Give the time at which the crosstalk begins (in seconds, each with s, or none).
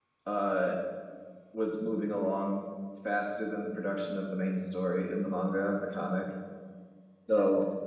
none